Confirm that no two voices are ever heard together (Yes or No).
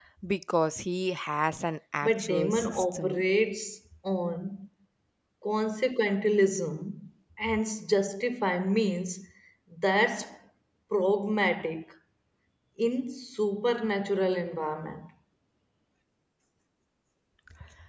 No